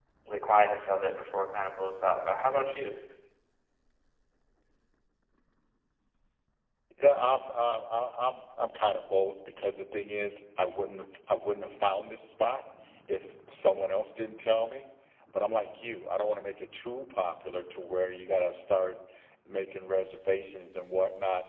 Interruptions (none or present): none